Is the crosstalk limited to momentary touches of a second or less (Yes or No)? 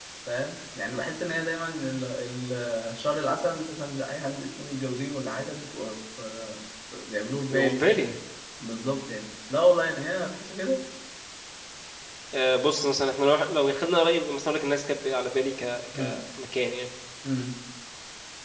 Yes